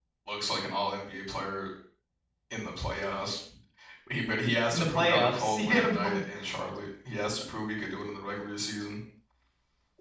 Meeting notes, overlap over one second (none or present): present